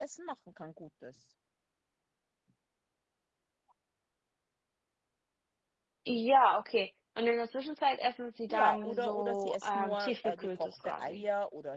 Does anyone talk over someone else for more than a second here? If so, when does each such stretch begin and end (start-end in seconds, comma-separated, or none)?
8.5-11.2